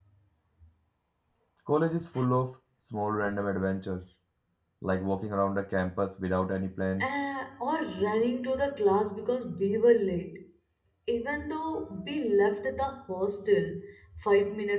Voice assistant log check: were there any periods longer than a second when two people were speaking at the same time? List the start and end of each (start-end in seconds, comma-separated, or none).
none